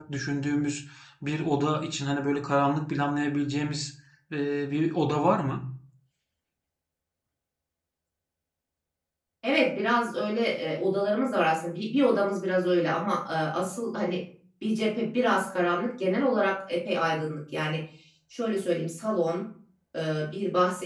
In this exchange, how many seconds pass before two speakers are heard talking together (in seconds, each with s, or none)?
none